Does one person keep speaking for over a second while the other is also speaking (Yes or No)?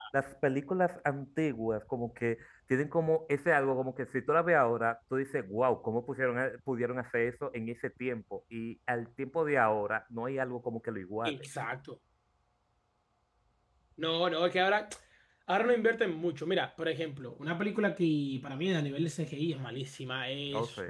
No